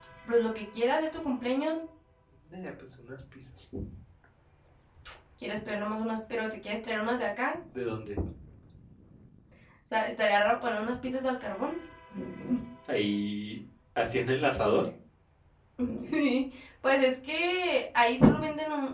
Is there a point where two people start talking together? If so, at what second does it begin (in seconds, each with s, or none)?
none